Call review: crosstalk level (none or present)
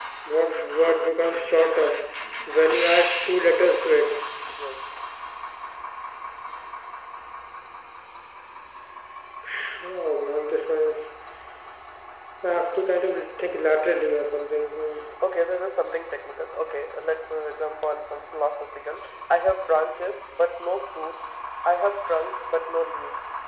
none